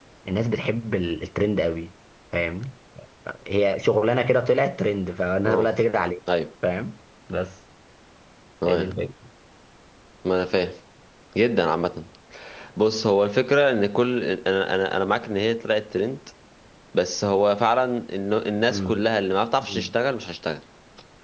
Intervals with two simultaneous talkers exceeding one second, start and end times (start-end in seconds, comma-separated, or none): none